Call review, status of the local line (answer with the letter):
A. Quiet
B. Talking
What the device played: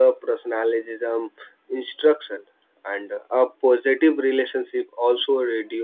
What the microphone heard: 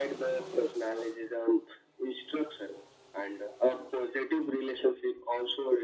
A